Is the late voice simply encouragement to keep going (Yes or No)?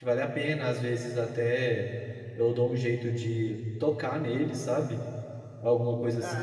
No